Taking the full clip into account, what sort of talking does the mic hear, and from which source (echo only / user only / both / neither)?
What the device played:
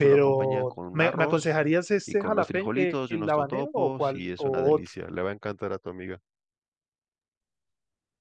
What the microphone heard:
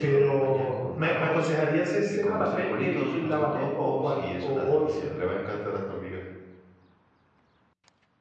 echo only